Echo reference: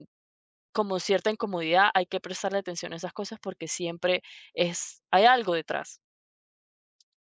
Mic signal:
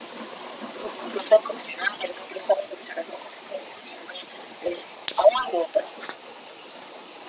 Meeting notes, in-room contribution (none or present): none